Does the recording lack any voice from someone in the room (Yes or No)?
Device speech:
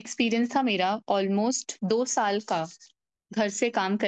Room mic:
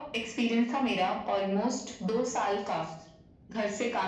Yes